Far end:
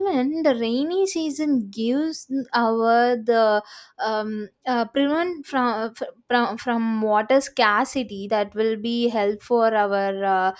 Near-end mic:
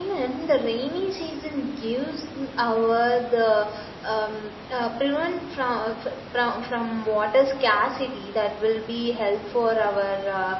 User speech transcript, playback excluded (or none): none